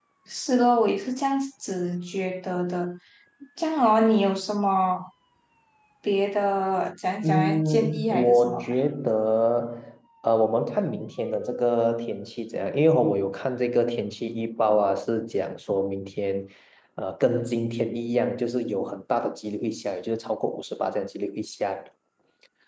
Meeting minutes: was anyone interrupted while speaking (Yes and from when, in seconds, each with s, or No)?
Yes, from 7.2 s